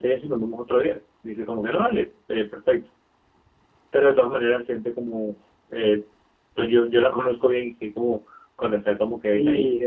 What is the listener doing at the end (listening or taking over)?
taking over